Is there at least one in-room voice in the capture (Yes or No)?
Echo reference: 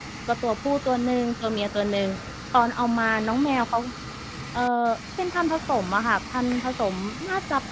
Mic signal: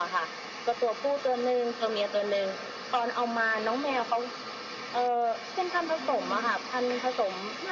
Yes